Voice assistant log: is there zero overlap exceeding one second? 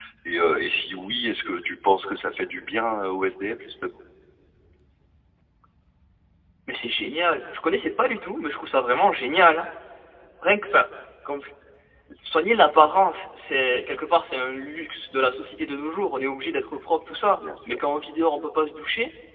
Yes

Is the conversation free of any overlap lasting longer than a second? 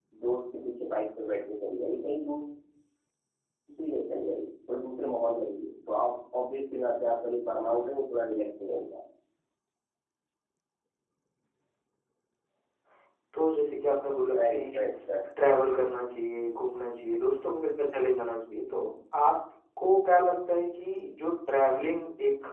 Yes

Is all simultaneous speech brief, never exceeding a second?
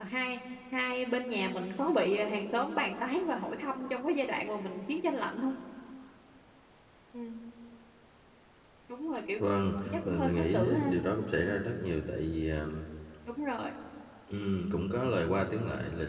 No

